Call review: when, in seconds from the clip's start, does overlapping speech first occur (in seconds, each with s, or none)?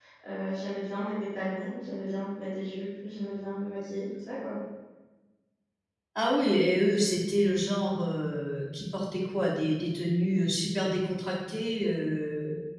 none